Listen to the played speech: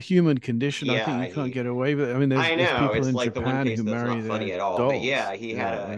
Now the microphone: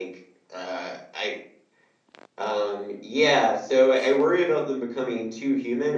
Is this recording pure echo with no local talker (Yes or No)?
No